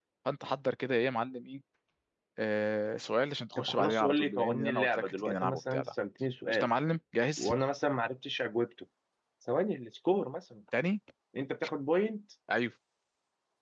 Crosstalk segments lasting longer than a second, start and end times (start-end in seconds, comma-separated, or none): 3.6-5.9